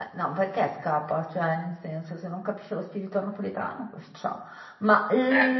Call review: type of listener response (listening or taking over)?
listening